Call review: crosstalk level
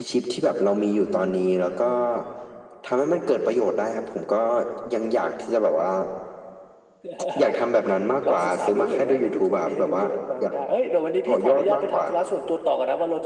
present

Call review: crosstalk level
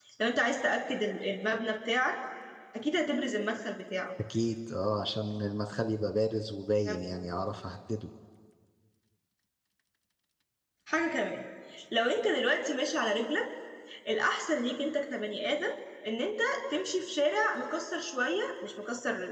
none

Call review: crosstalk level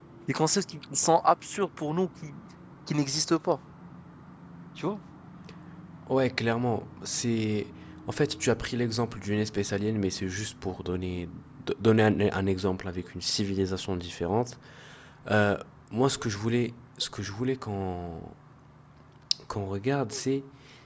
none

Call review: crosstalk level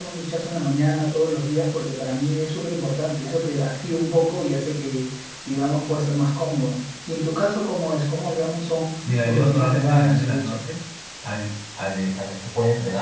present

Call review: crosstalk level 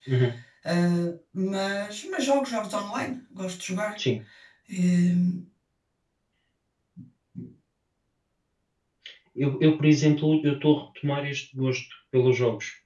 none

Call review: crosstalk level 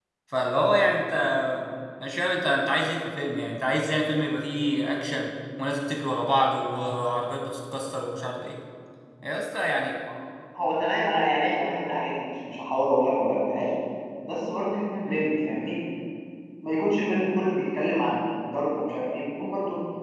none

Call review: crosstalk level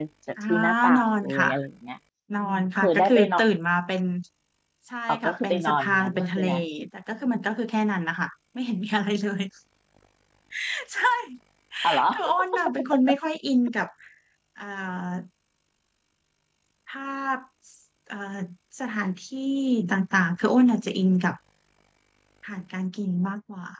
present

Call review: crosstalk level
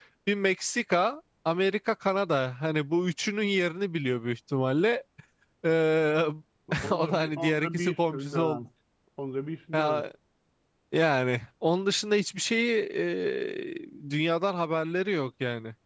present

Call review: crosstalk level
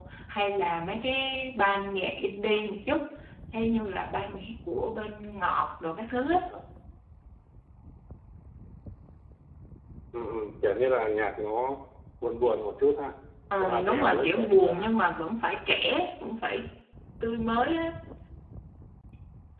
present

